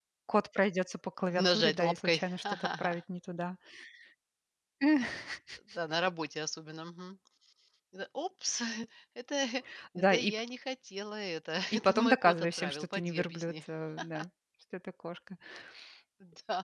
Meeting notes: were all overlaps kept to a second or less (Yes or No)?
No